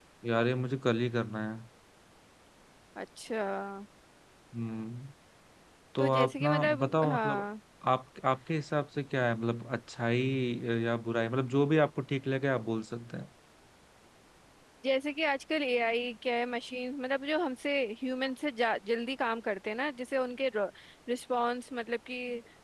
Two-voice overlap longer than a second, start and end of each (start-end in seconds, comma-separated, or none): 6.0-7.5